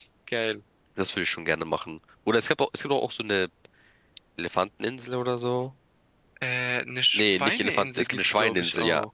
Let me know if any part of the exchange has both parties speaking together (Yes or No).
Yes